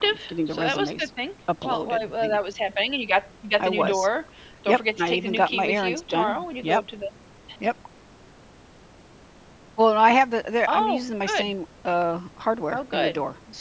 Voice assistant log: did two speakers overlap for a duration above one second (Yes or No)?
Yes